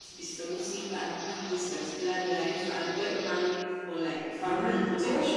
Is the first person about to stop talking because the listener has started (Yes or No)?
Yes